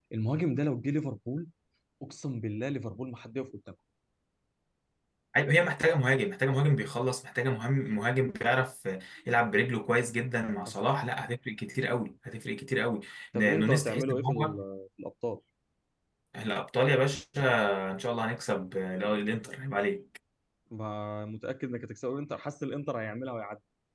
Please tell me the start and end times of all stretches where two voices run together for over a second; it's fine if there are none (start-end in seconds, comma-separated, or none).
13.3-14.6